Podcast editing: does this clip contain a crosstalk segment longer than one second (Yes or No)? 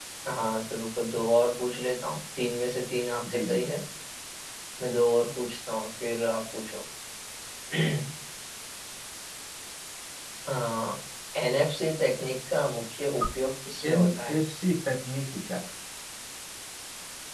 No